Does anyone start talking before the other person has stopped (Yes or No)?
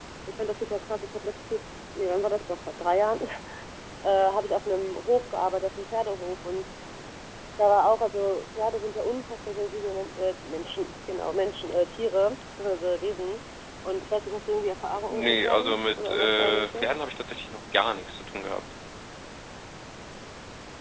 Yes